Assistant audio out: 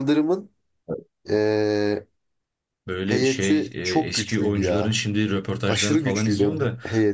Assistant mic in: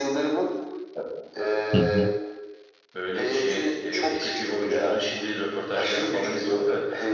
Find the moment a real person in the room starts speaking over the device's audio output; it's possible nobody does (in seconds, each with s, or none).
1.7 s